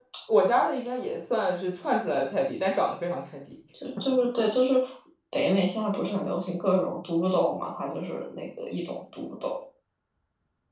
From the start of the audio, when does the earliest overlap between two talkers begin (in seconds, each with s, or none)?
none